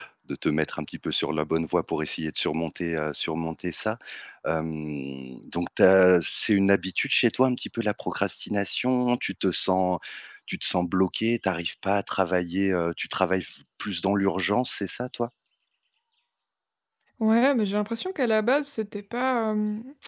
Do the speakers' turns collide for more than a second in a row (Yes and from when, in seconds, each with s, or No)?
No